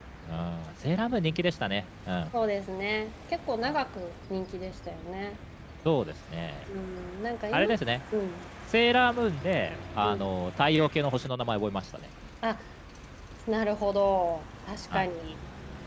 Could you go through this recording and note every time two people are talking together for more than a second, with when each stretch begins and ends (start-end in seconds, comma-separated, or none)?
none